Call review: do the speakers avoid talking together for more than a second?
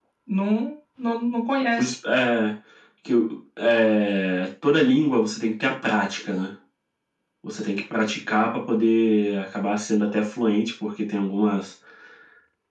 Yes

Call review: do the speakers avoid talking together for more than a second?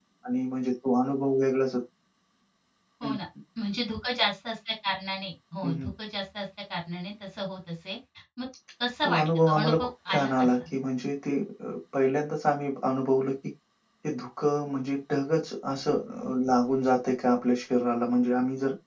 No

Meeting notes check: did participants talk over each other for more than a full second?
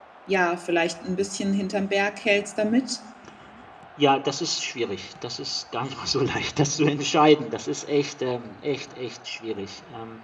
No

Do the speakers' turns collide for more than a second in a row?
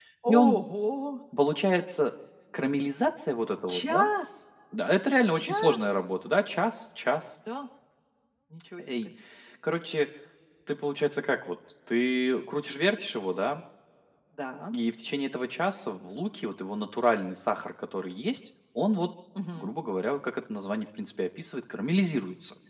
No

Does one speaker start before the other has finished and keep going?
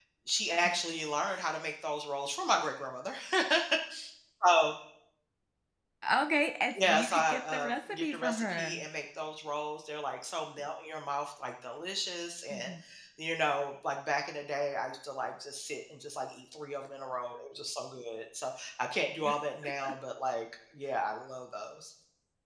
Yes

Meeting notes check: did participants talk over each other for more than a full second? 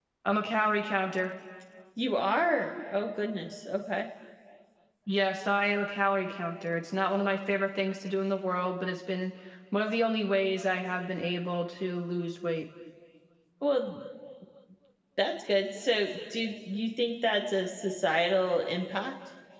No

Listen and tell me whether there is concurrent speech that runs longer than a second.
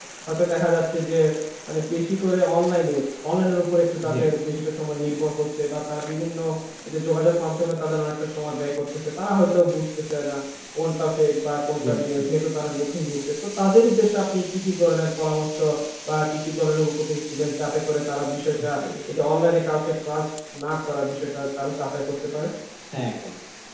No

